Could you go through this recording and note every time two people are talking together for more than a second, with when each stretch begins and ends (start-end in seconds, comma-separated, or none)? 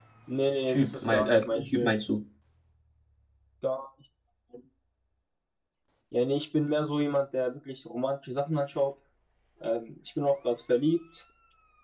0.7-2.0